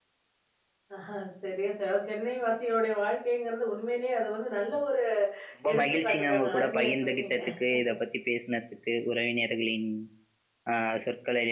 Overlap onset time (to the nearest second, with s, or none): 6 s